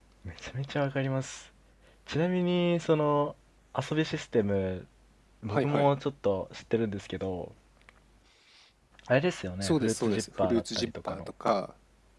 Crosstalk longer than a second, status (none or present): present